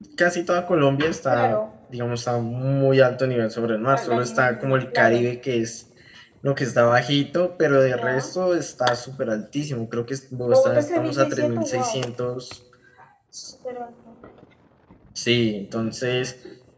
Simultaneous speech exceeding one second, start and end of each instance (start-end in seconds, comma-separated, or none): 3.9-5.3, 10.5-12.0